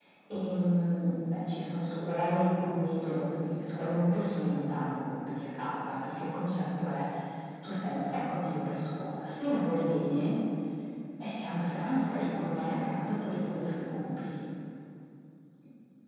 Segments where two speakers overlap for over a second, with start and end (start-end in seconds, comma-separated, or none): 11.7-14.3